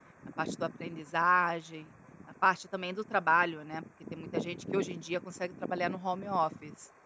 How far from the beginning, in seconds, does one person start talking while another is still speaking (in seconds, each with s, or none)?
none